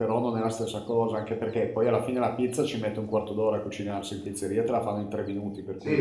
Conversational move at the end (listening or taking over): taking over